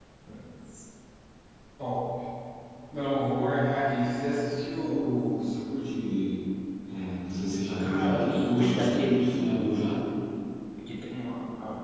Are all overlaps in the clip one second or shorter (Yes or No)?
No